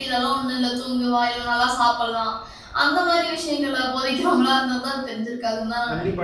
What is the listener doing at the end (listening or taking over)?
taking over